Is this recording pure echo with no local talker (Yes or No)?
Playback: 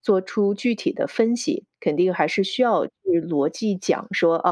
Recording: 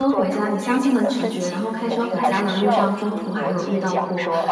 No